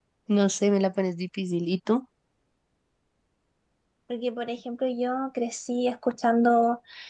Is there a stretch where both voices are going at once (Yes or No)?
No